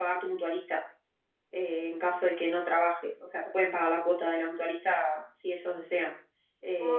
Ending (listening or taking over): listening